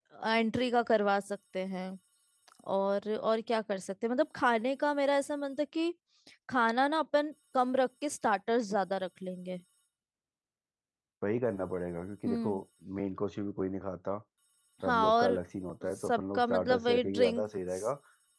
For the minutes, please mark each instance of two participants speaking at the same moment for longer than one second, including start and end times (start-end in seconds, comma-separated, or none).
16.0-17.9